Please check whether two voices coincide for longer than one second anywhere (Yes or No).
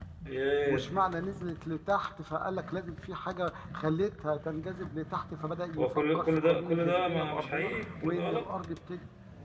Yes